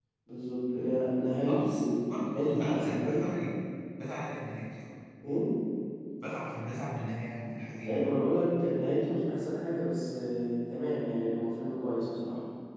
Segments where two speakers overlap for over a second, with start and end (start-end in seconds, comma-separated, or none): 1.5-3.3